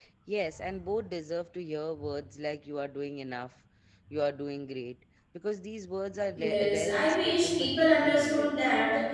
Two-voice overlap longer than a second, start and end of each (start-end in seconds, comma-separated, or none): 6.3-8.5